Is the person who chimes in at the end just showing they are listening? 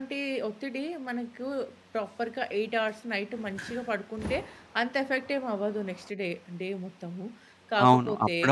No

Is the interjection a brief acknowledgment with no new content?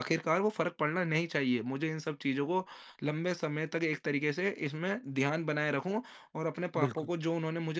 Yes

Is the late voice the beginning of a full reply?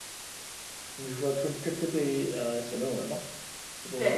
Yes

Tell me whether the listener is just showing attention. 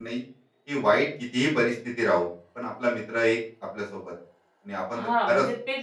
No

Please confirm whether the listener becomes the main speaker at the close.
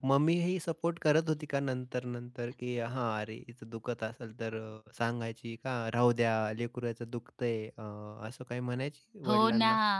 Yes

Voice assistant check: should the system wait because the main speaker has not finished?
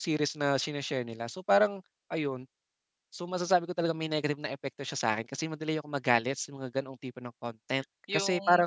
No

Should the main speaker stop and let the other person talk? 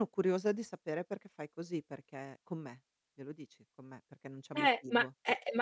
Yes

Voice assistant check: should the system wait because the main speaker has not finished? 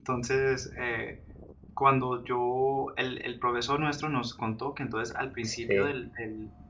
Yes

